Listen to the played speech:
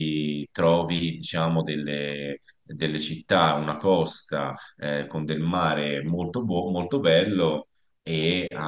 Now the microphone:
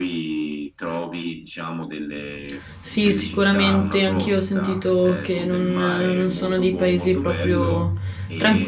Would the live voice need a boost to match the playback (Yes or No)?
No